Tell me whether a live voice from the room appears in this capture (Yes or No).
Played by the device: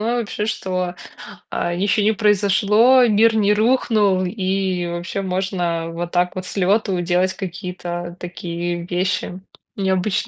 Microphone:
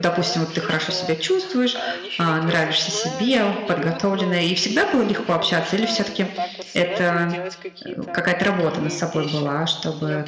Yes